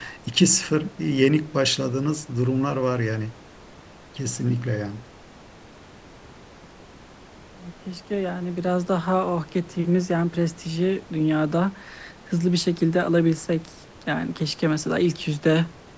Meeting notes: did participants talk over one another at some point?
No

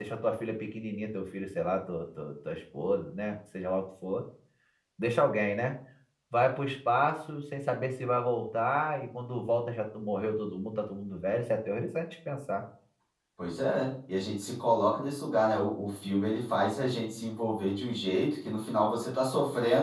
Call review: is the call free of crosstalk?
Yes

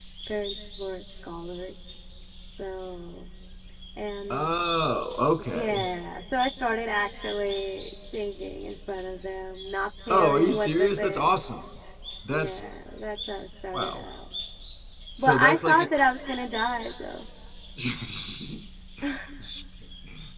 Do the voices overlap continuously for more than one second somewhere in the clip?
Yes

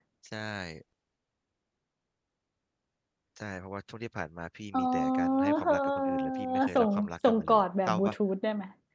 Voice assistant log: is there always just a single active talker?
No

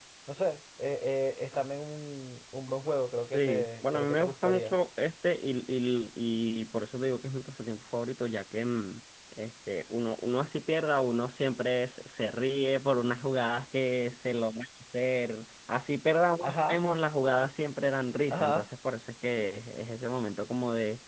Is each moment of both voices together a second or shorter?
No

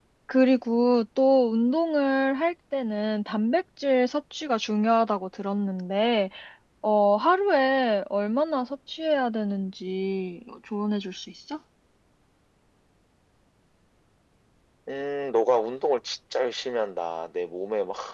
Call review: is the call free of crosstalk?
Yes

